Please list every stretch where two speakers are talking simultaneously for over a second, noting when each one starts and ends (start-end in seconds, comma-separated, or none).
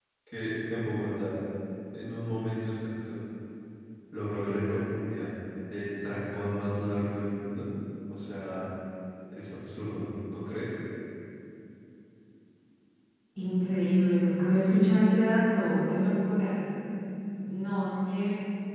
none